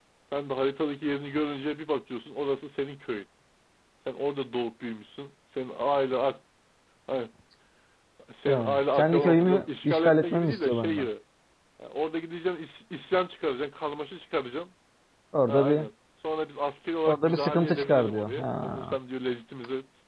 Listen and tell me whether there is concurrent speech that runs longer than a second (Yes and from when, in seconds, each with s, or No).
Yes, from 8.5 s